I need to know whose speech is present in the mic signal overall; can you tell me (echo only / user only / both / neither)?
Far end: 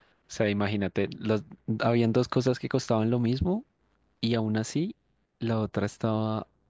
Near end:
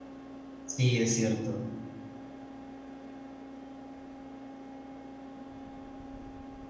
user only